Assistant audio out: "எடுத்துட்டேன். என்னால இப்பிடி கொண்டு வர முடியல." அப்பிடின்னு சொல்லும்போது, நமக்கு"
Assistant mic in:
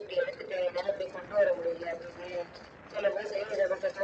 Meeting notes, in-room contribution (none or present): none